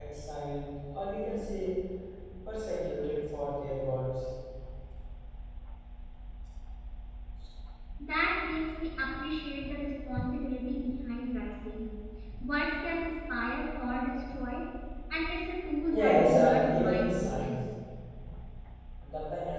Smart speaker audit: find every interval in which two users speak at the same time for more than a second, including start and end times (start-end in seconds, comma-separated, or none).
15.9-17.5